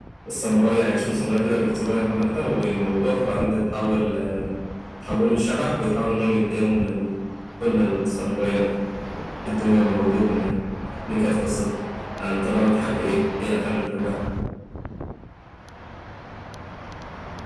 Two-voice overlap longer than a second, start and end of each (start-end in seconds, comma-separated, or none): none